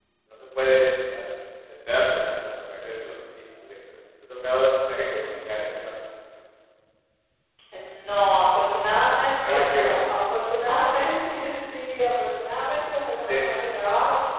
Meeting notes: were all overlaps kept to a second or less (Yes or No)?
Yes